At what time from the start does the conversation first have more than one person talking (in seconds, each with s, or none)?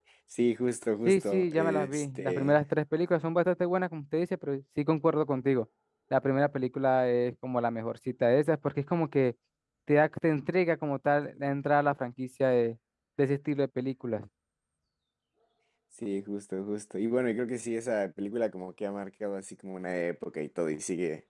1.1 s